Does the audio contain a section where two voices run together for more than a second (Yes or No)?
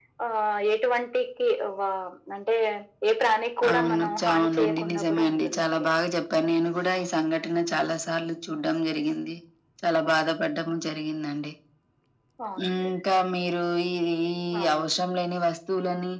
Yes